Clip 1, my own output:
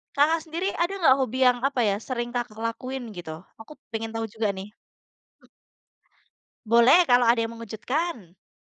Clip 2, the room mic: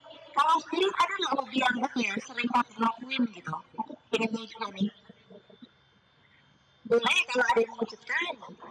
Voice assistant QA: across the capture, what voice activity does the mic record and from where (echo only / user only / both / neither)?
echo only